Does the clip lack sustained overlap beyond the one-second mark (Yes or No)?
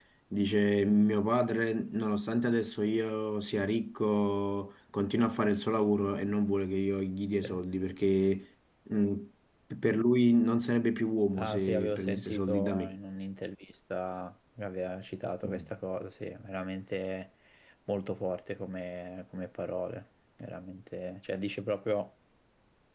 No